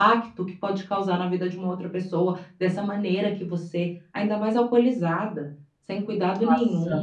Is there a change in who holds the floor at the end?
Yes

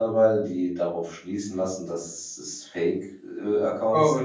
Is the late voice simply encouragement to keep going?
No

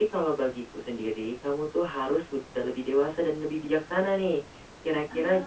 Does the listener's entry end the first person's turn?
No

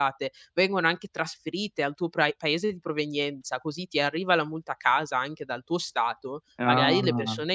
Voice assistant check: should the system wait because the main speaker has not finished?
Yes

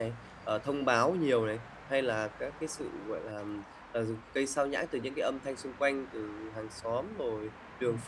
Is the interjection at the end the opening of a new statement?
No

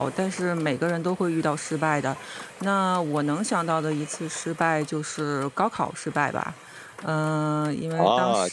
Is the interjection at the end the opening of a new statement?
Yes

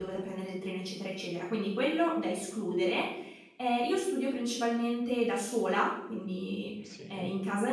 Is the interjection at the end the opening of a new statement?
No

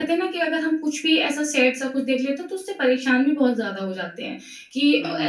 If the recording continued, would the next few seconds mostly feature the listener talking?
Yes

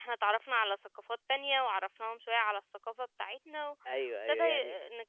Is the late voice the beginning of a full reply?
Yes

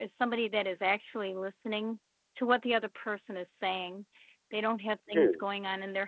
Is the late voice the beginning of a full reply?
No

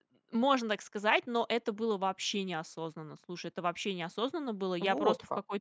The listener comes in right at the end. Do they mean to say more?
No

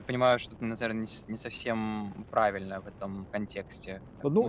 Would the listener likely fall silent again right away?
No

